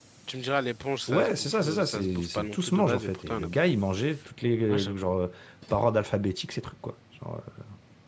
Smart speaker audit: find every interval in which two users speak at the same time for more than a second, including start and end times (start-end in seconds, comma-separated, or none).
1.1-3.6